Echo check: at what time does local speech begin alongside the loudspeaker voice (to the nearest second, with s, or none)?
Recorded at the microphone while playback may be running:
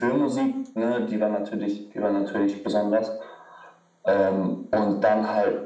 none